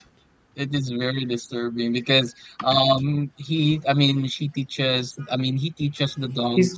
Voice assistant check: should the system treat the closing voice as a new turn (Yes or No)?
No